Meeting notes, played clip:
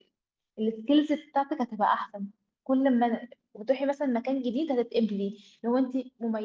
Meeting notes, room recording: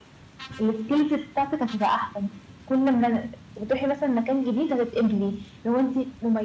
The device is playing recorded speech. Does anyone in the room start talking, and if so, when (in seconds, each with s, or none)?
none